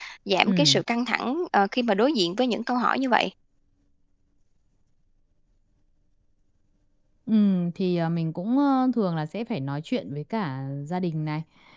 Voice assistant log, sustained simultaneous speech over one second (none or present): none